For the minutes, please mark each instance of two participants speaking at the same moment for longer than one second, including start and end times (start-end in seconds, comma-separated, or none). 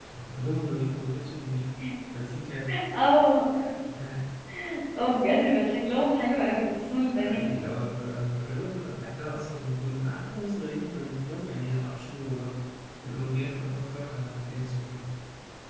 none